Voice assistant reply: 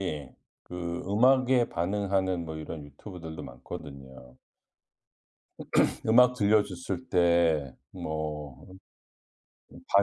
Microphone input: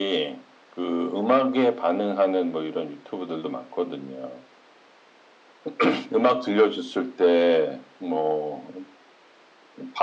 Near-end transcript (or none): none